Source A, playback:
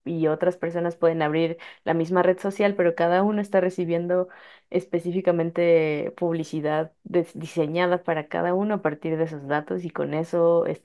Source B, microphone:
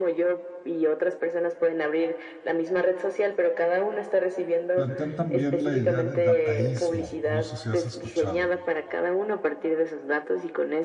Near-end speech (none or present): present